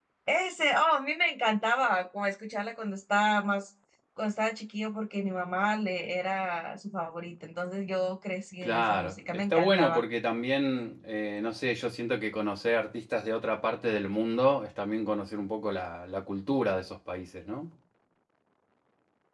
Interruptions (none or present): present